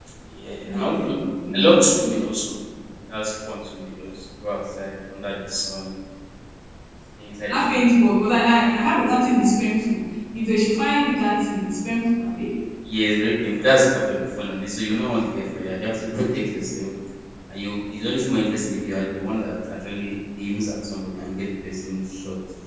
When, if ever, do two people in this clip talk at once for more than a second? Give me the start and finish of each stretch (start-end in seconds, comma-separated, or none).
none